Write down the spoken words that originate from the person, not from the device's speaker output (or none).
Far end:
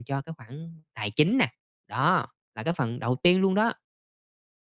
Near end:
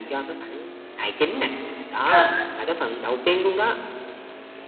Trời ơi!